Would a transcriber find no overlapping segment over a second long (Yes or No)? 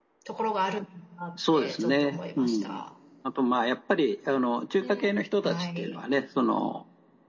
No